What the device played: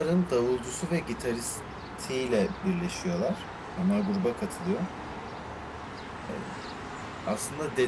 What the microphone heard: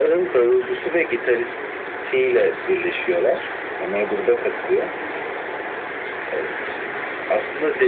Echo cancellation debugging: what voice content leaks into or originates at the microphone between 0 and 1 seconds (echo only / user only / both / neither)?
echo only